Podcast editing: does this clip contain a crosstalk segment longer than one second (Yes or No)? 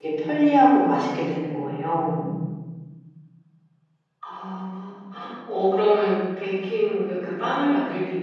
No